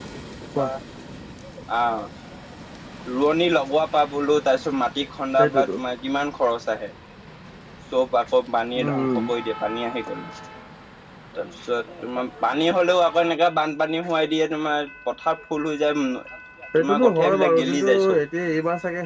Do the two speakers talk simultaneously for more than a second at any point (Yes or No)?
Yes